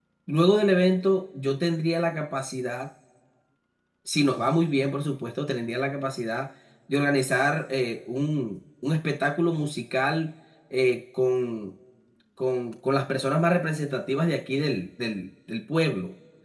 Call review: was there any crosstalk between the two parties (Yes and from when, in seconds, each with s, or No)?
No